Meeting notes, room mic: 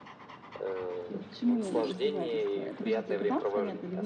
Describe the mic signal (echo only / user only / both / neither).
both